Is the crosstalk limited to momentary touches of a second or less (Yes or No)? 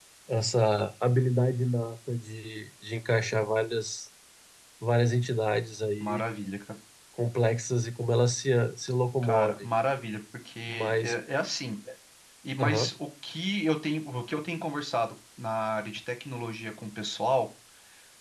Yes